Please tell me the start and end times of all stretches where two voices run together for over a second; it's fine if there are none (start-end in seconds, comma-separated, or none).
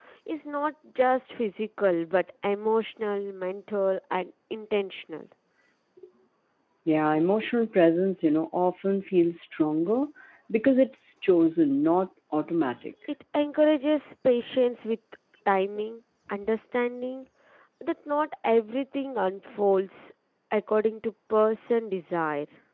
none